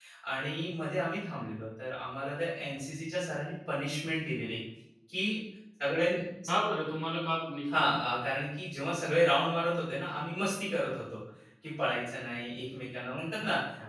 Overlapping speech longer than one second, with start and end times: none

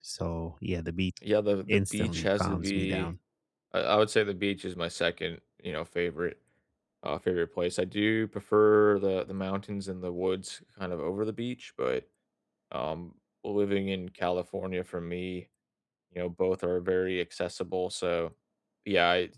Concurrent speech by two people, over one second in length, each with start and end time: 1.7-3.1

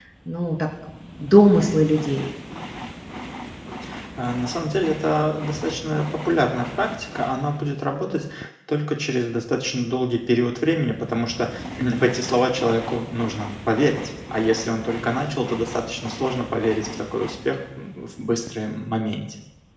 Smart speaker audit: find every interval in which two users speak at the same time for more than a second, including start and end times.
none

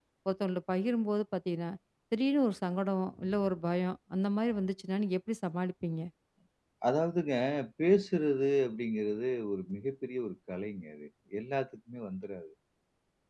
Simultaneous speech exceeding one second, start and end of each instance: none

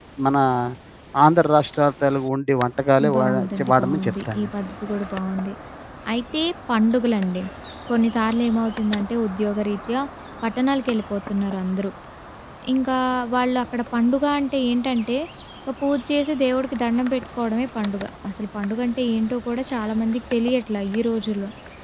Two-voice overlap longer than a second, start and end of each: 3.1-4.5

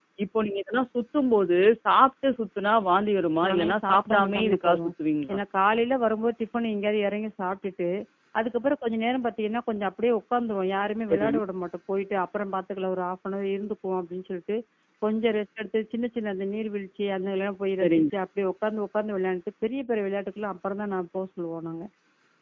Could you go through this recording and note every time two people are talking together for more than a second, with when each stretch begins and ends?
3.5-4.9

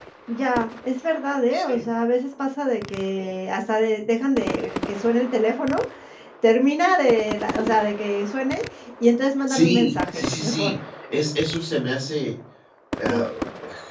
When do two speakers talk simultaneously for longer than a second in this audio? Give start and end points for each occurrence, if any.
9.5-10.7

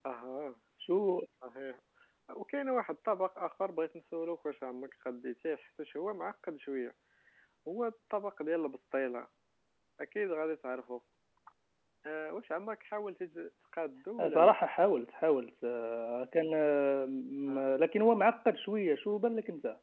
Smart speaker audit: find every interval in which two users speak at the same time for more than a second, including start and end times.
none

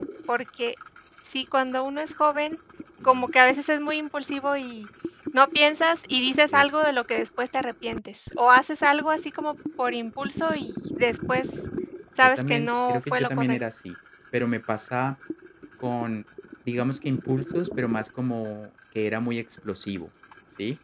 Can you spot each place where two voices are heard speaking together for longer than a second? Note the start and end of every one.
12.2-13.6

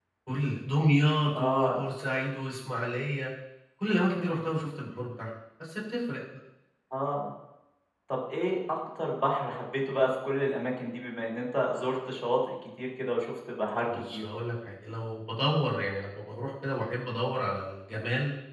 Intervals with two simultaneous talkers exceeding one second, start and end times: none

